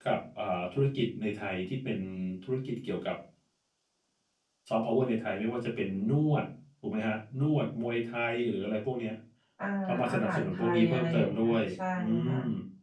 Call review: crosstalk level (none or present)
present